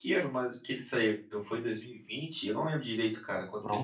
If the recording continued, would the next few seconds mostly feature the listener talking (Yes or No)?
Yes